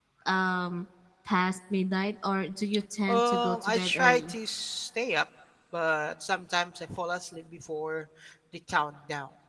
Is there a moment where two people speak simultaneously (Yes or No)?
Yes